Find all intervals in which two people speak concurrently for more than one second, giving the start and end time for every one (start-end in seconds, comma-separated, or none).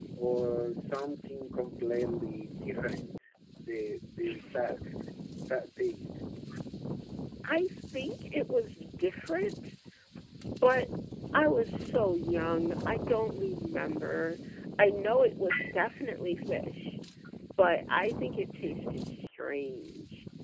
none